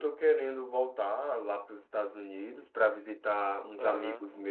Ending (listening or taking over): listening